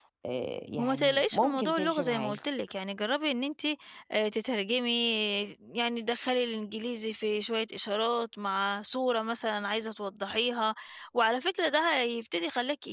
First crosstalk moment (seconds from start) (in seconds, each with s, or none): 0.8 s